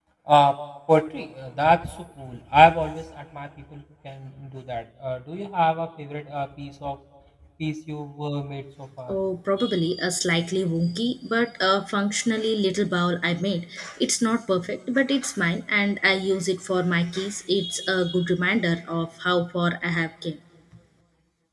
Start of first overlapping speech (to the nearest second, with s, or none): none